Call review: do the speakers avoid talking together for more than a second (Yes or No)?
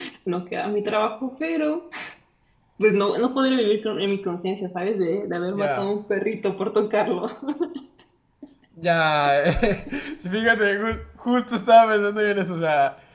Yes